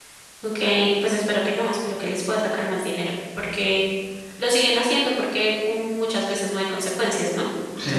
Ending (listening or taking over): taking over